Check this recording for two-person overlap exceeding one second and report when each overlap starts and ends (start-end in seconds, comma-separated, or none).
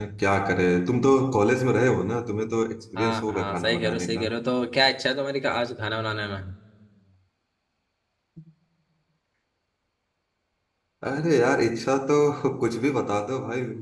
3.0-4.3